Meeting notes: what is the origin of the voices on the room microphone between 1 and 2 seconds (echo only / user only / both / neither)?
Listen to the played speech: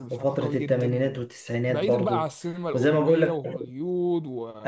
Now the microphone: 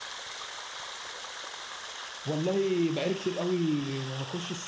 neither